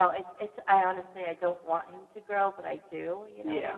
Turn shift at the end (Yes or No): Yes